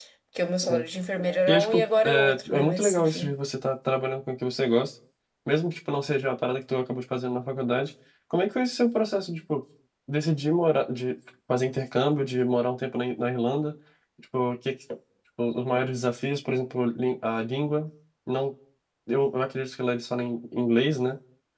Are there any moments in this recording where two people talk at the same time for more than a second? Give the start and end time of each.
1.5-3.3

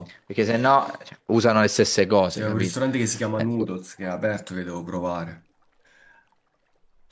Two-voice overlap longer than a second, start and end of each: none

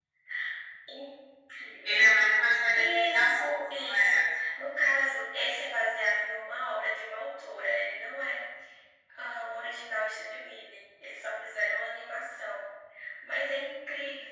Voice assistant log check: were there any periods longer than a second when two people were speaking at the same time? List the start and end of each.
2.8-4.3

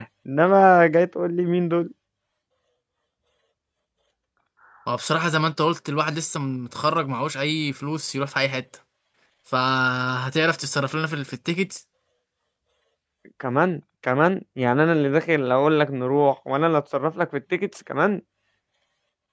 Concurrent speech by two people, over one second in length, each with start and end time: none

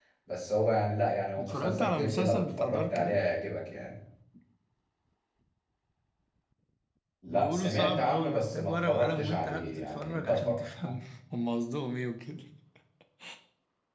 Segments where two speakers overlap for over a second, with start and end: 1.4-3.2, 7.3-11.0

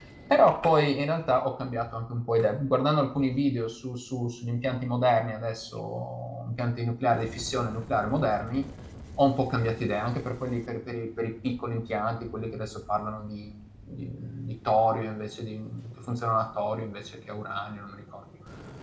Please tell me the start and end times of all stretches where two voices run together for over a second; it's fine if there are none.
none

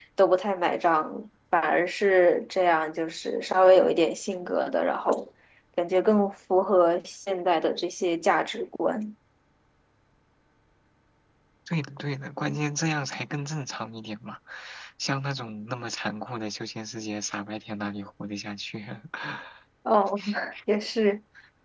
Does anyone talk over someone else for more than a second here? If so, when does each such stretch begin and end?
none

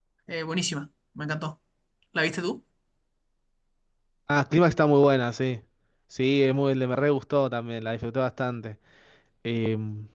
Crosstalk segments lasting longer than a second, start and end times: none

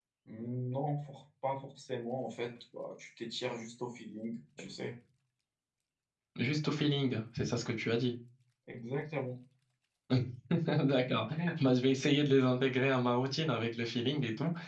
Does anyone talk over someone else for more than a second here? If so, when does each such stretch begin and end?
none

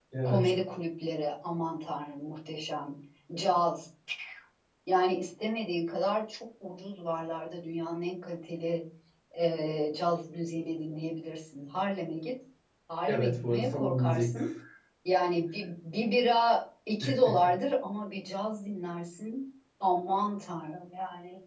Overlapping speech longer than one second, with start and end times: 13.1-14.4

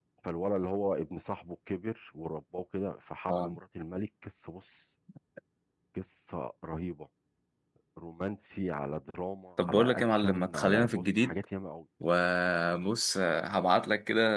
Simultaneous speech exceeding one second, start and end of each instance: 9.7-11.3

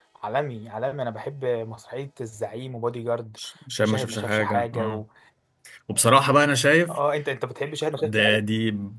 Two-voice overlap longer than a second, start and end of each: 3.8-5.0

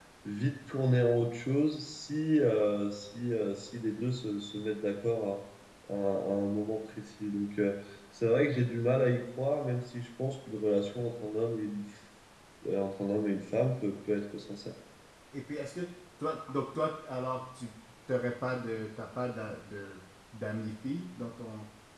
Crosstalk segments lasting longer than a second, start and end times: none

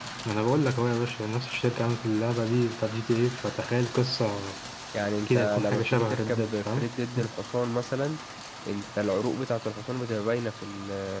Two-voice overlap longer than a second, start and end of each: 5.2-6.8

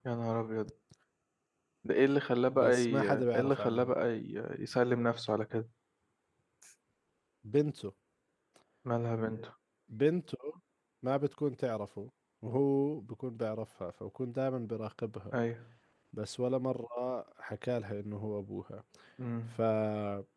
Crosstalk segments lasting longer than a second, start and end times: 2.5-3.9

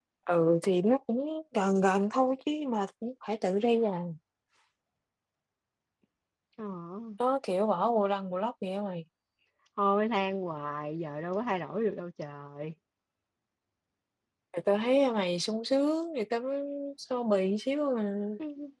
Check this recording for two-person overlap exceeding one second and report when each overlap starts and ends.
none

